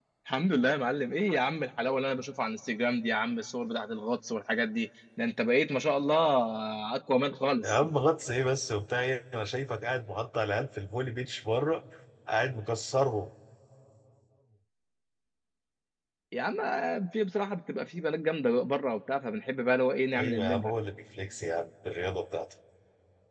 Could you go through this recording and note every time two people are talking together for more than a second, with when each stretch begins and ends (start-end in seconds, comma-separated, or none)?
none